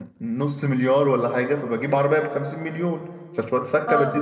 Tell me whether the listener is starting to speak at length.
Yes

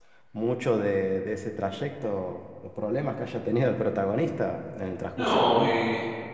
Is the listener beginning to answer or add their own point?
Yes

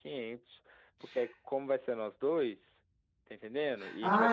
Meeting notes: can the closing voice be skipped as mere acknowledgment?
No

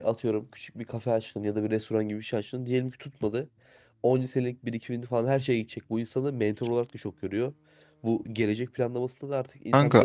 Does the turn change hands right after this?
No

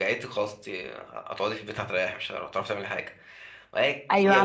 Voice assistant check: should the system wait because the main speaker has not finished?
No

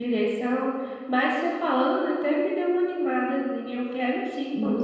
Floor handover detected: Yes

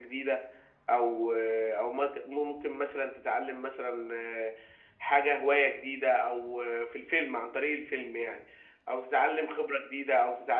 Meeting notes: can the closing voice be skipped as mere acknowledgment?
Yes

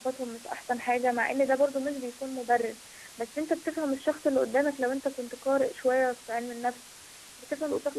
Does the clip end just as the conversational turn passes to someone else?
No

